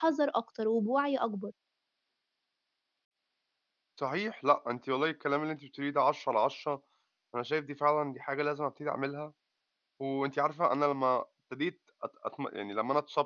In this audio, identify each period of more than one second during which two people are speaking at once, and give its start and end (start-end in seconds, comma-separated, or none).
none